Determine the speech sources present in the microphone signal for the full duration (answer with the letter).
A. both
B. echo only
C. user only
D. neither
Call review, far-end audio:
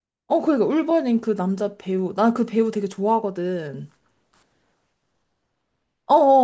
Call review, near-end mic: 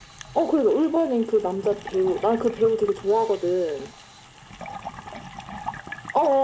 B